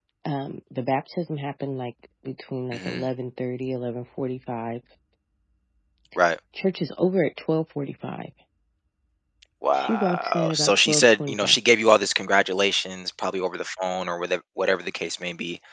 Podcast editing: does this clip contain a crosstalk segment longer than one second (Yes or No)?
Yes